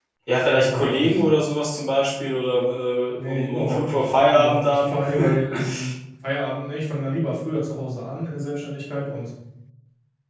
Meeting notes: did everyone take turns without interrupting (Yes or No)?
No